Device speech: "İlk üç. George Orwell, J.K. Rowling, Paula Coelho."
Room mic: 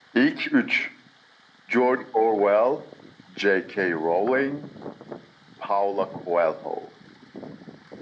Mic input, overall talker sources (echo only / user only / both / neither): echo only